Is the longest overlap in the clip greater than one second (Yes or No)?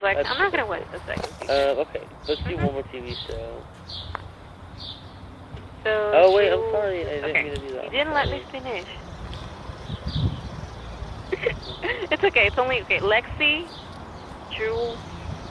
Yes